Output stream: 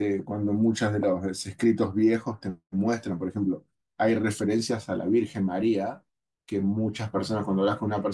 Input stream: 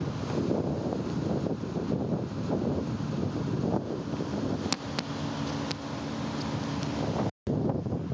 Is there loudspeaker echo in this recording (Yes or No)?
No